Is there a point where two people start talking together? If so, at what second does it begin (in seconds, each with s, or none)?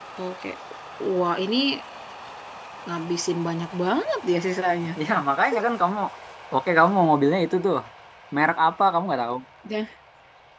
none